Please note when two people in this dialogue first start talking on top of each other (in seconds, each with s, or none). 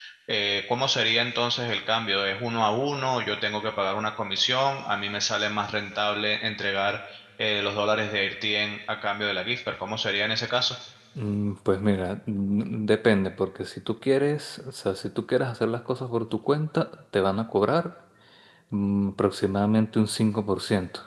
none